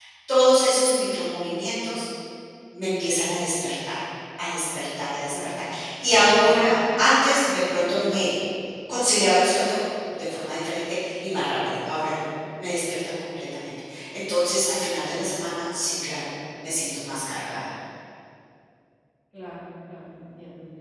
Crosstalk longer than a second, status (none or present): none